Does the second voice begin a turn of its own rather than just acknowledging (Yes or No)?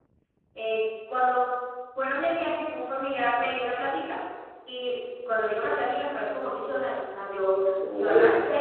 No